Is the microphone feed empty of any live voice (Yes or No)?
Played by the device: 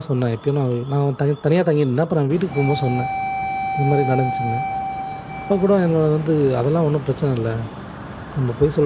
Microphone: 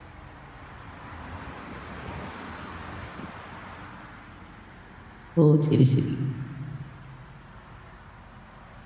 No